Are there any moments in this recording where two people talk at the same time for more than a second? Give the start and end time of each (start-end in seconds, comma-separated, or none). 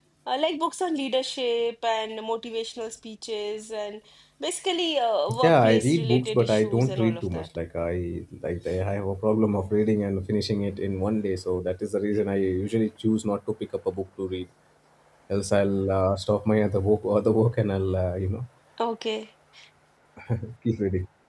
5.4-7.5